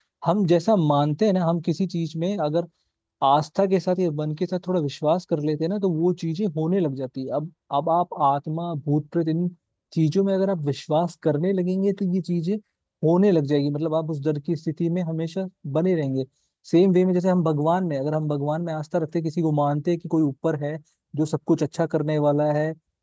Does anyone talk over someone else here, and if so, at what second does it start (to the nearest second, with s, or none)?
none